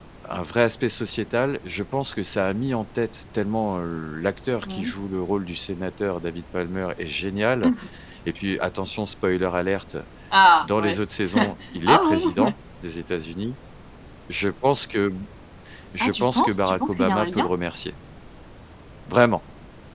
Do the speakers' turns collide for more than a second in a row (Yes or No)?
Yes